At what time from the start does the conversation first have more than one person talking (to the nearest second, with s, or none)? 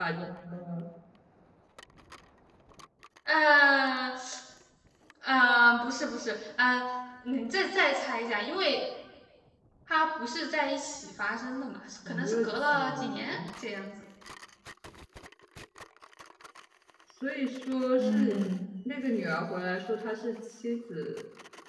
12 s